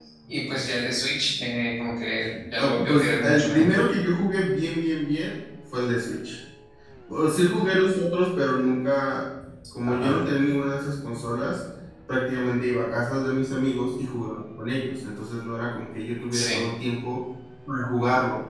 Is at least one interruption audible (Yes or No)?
Yes